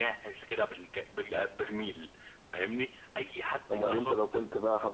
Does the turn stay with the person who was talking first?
No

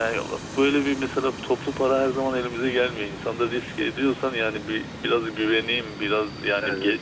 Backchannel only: Yes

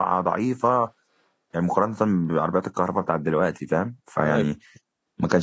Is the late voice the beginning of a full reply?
No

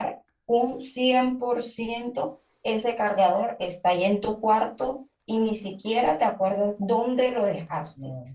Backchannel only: Yes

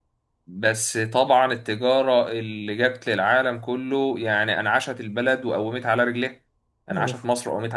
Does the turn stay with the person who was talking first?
Yes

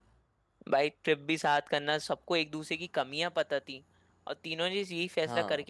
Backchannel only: Yes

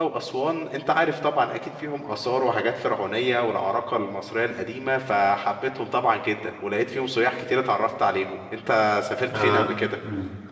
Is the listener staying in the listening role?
No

